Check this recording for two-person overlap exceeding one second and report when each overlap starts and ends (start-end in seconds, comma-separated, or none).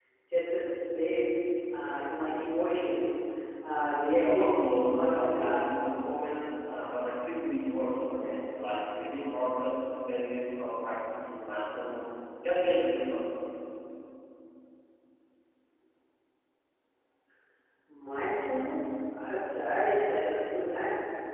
4.1-5.5